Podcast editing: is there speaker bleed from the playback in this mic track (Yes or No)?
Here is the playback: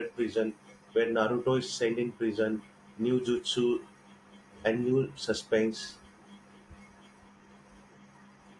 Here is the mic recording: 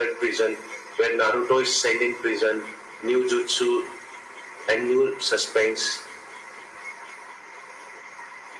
Yes